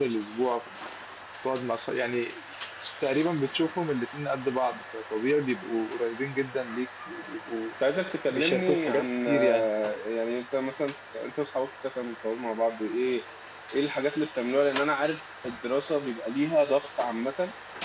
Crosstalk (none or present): present